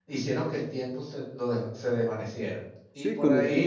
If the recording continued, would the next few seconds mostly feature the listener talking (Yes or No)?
Yes